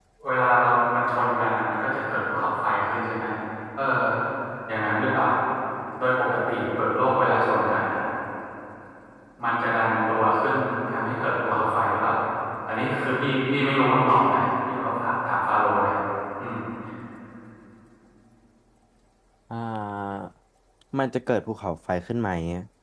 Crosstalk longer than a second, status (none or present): none